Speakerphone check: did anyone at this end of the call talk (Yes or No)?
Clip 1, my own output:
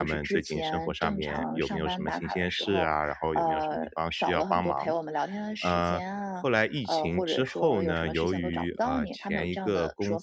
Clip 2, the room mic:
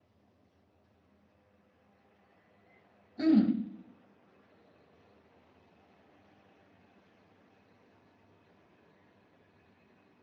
Yes